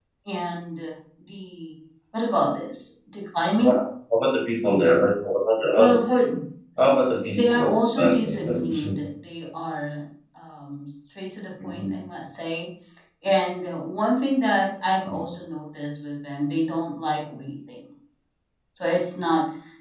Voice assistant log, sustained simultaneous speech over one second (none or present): present